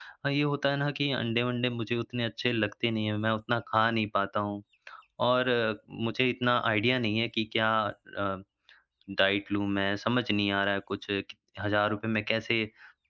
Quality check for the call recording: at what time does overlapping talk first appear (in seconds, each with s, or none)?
none